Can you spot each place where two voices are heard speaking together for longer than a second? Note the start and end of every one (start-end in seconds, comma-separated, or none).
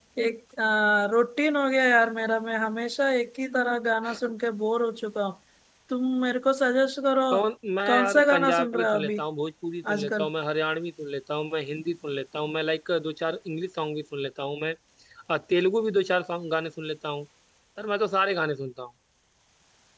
7.9-9.2